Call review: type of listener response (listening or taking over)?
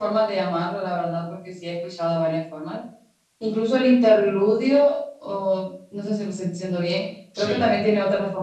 listening